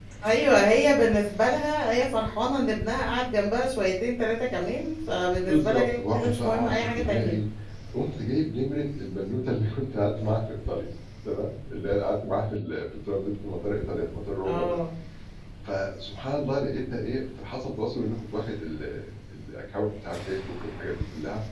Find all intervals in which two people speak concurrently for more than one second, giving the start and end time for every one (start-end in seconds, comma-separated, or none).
5.4-7.3